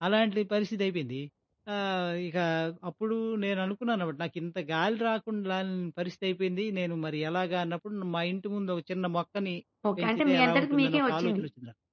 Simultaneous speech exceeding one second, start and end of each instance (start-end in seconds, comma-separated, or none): 10.0-11.4